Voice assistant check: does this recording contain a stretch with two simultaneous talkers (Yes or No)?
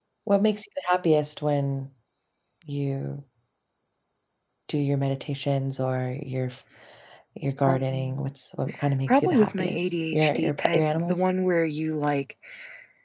Yes